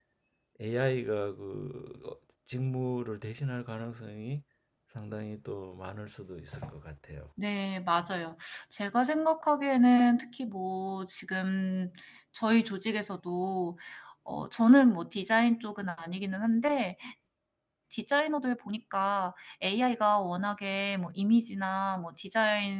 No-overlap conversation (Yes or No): Yes